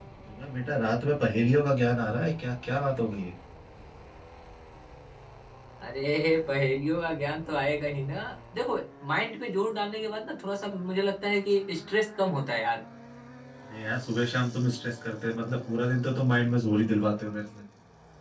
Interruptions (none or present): none